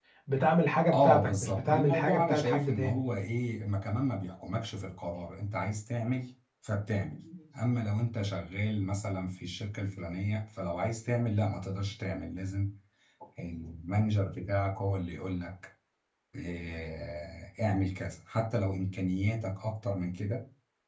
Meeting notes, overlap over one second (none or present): present